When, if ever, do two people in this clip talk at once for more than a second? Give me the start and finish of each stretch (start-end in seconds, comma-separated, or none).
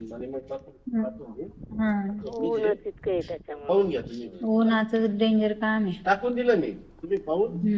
none